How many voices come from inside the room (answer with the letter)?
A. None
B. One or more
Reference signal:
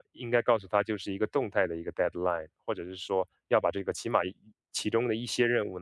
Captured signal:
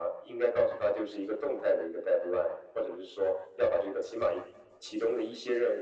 A